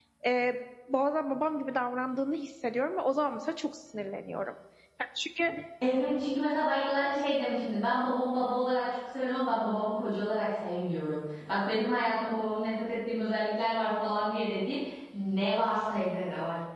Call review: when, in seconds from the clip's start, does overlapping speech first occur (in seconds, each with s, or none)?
none